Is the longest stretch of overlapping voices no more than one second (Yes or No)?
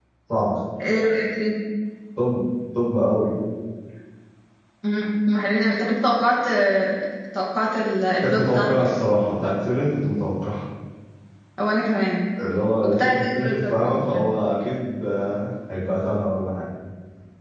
No